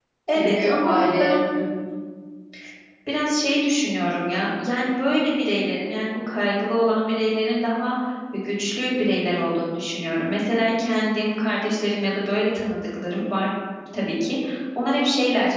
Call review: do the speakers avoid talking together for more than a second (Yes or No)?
No